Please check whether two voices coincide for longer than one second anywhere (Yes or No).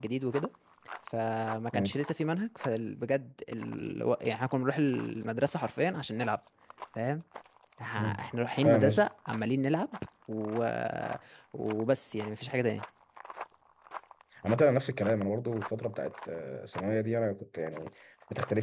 No